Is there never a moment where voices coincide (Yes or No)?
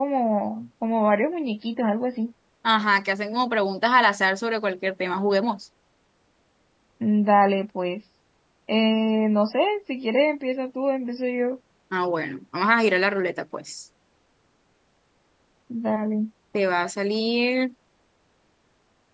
Yes